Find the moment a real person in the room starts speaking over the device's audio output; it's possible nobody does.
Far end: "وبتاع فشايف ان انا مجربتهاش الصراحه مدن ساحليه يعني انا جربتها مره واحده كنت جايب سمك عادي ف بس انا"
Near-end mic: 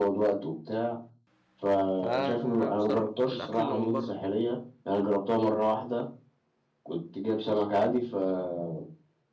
2.0 s

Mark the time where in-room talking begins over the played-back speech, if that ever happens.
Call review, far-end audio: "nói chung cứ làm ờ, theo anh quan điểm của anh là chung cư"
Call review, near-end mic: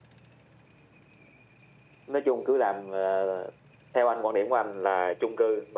none

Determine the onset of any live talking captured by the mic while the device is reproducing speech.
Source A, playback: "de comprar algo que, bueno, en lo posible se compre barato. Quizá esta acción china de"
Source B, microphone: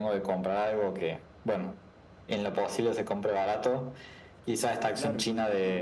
4.8 s

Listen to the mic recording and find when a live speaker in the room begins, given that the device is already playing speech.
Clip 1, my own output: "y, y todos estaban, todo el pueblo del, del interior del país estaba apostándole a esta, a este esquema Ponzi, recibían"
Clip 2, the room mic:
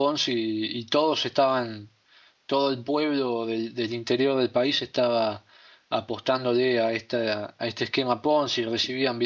none

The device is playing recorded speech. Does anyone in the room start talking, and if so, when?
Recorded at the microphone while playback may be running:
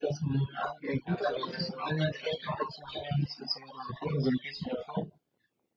1.0 s

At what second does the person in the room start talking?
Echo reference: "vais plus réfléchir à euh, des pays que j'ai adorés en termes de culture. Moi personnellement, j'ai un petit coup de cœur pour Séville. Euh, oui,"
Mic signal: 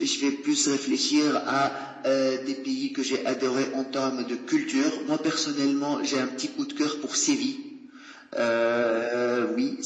none

